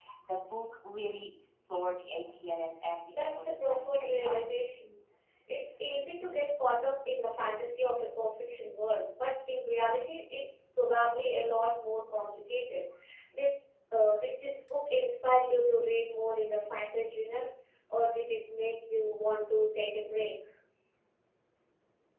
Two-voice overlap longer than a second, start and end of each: 3.1-4.7

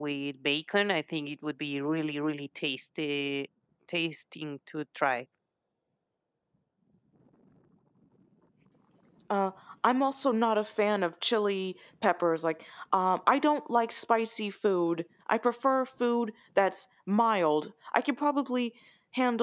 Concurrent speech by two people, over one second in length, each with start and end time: none

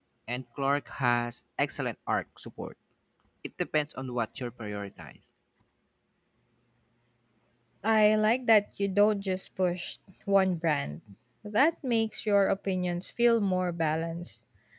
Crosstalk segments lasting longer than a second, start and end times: none

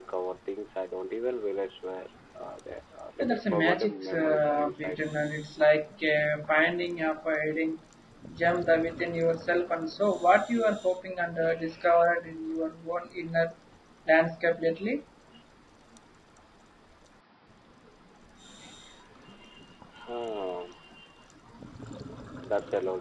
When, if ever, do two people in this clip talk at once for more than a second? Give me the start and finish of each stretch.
3.2-5.2

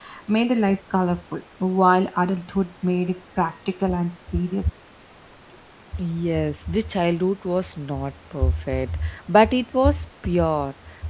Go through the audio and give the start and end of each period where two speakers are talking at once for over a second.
none

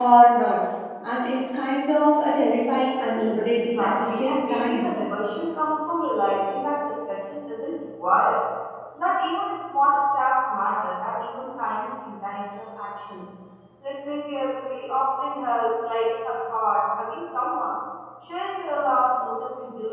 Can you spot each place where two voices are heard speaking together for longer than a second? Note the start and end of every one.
3.5-4.9

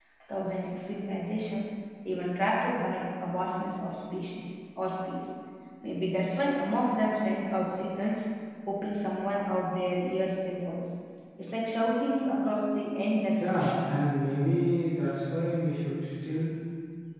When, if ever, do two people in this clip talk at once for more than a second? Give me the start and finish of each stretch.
none

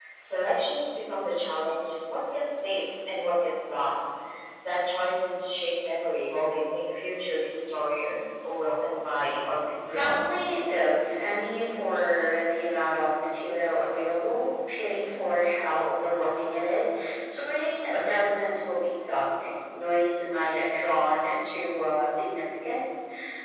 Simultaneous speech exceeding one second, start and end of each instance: none

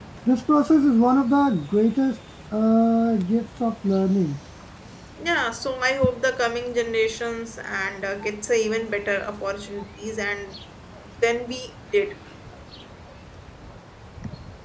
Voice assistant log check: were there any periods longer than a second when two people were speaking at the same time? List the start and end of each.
none

